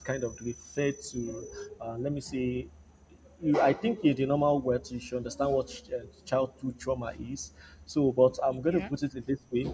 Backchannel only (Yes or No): Yes